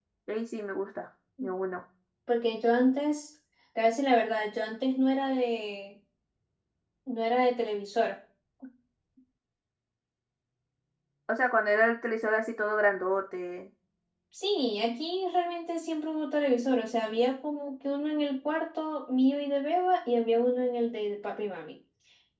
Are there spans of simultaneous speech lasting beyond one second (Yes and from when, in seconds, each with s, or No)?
No